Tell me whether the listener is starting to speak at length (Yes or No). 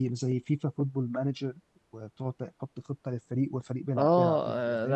Yes